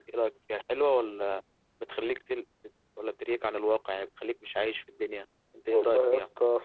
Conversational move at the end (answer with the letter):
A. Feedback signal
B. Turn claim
B